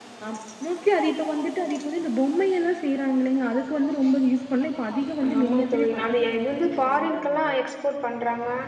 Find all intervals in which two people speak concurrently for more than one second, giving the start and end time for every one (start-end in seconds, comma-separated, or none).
5.4-7.5